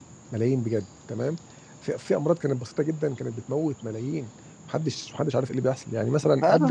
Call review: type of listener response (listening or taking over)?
taking over